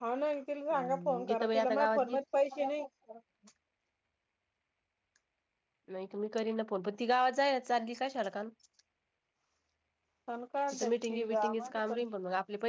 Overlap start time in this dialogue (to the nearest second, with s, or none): 1 s